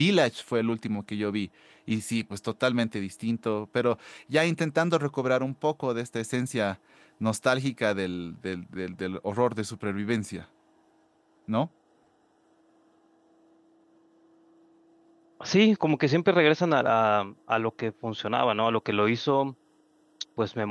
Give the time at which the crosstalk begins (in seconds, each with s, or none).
none